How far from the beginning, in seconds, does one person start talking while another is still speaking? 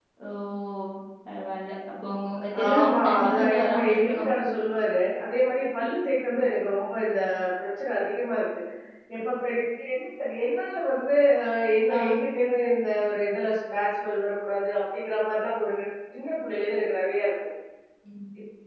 3 s

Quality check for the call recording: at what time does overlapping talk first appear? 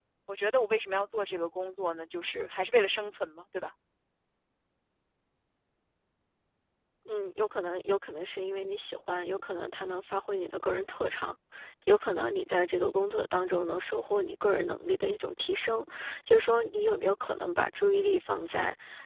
none

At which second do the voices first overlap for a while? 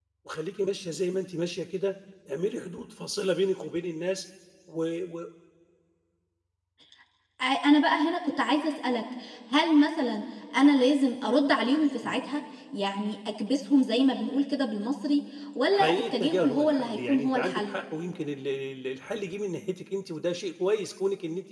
16 s

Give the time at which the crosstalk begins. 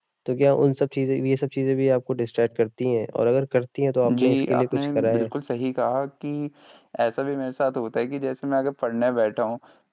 4 s

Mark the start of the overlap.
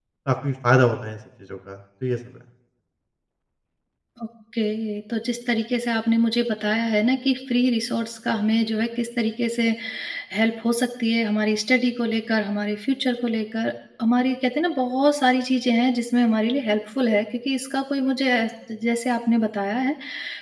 none

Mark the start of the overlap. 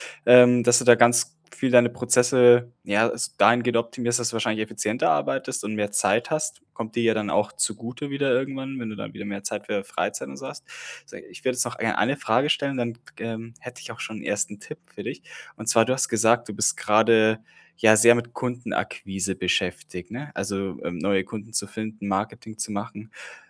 none

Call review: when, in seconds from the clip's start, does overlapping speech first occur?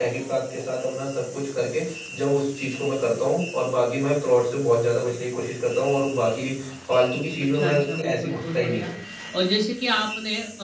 8 s

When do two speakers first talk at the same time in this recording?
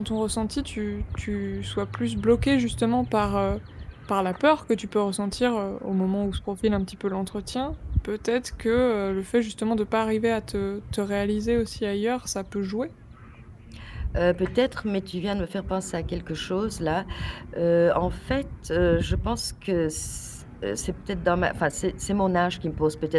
none

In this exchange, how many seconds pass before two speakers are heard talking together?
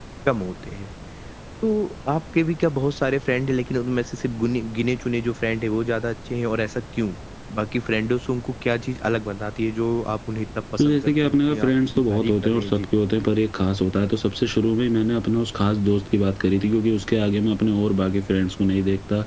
11 s

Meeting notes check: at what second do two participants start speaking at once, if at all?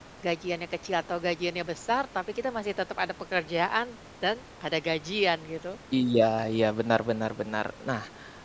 none

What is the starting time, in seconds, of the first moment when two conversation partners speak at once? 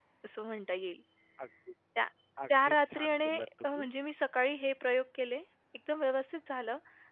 3 s

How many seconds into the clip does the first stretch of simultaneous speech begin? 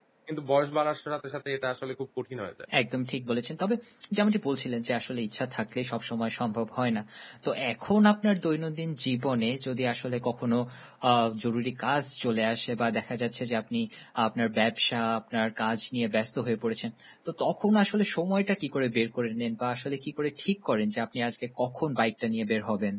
none

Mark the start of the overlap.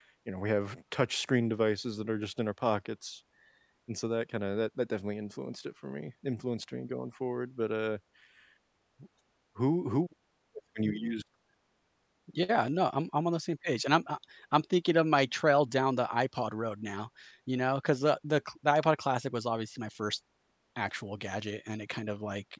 none

